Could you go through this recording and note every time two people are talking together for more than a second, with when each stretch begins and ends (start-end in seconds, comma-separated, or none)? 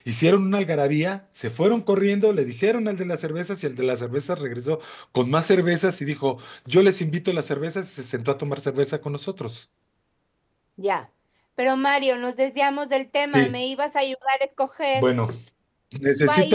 none